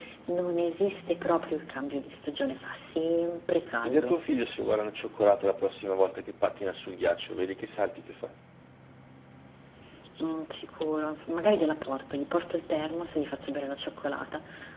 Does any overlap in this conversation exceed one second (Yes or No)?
No